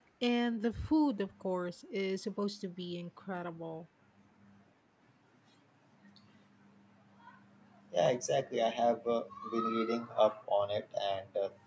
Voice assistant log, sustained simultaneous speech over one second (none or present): none